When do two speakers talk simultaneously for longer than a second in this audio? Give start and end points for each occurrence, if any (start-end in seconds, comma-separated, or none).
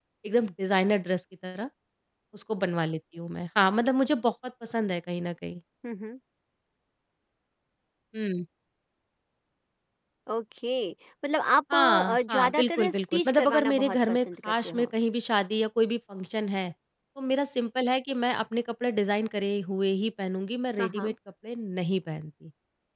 11.7-14.9